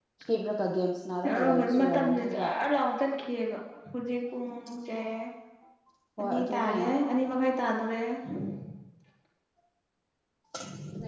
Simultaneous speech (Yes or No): Yes